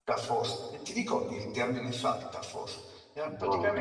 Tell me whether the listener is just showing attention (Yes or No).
Yes